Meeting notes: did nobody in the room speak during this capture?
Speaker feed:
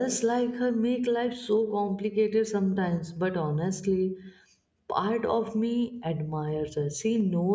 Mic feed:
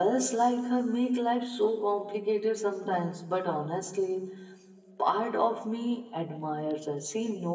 Yes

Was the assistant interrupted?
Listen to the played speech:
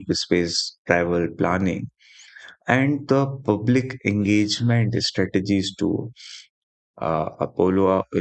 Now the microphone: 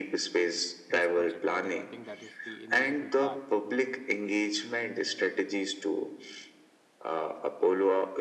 Yes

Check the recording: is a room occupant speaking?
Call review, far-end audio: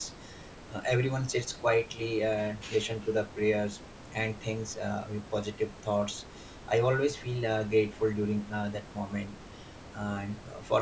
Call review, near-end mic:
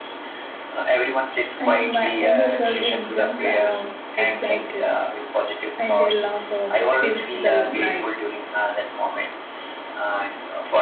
Yes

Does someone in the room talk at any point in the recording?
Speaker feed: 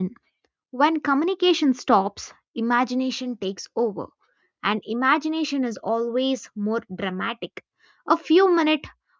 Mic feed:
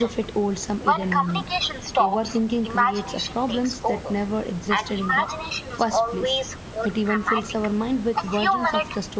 Yes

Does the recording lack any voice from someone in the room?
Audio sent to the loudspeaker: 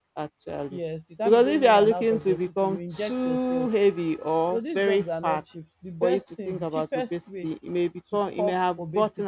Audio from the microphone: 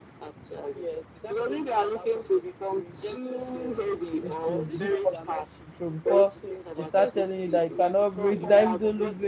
No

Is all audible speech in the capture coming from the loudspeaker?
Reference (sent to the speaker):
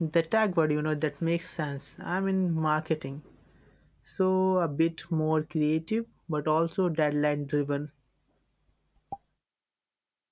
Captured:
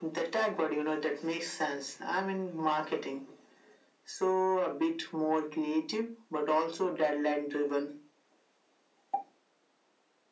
Yes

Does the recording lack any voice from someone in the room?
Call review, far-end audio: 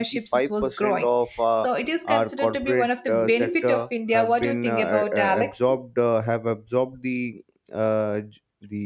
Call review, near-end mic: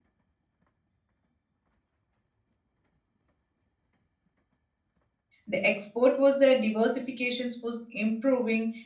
No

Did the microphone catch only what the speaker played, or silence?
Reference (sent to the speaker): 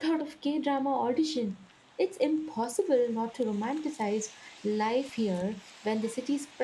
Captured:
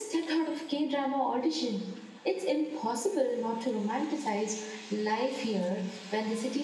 Yes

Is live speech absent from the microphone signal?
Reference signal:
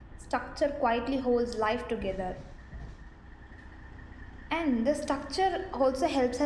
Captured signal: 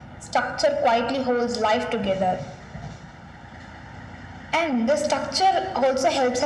Yes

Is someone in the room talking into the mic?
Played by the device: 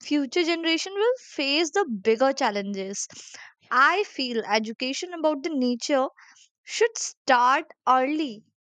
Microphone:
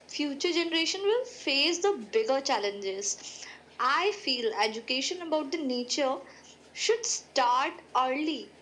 No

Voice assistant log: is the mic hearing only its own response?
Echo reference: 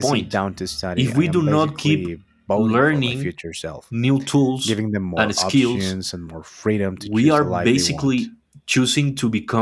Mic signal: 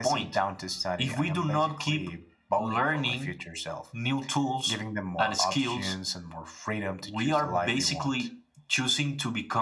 Yes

